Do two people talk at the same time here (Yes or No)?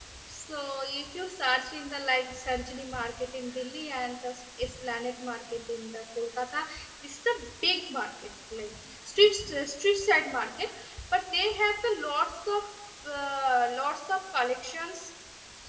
No